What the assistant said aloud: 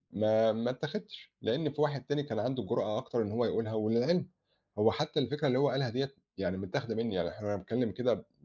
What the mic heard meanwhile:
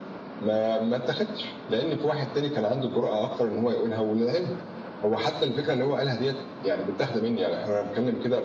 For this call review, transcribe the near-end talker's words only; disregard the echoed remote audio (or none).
none